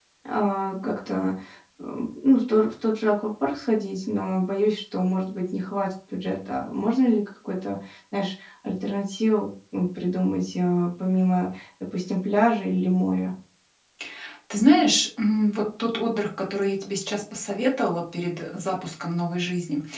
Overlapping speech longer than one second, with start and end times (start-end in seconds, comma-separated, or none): none